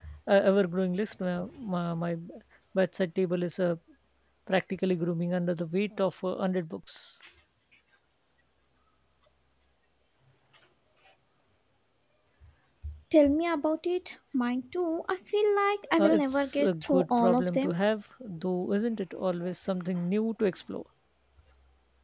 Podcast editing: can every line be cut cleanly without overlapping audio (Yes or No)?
No